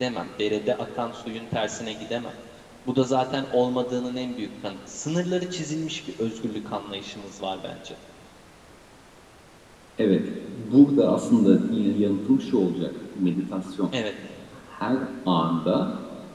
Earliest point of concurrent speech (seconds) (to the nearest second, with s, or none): none